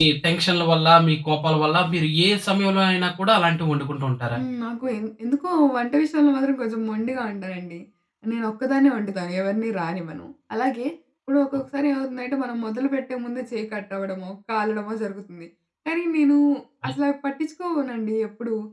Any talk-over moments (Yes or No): No